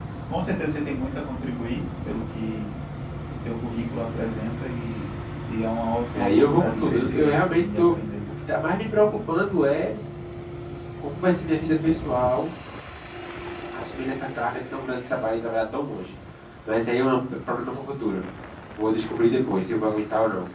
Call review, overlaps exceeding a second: present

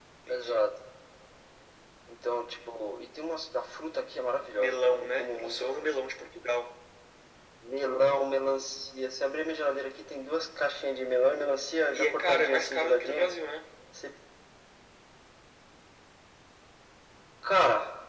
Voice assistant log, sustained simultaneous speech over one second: present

